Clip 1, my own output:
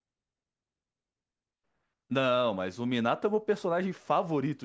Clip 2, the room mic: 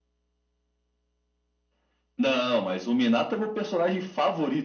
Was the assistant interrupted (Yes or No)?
No